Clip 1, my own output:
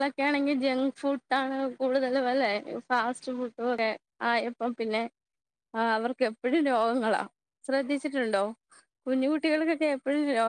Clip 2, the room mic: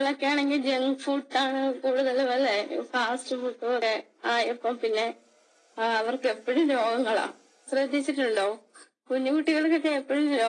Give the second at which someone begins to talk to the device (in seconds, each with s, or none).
none